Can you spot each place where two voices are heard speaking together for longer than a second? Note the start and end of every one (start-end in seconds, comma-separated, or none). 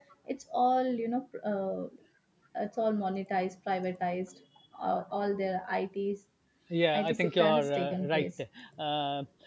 7.0-8.2